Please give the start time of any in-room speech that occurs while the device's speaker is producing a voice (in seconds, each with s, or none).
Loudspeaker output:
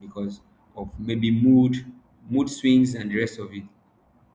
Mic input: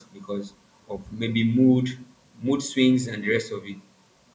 none